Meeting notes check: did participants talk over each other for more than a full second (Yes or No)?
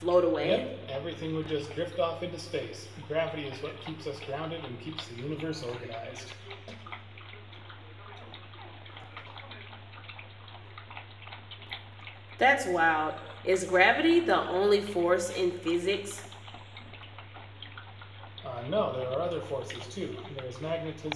No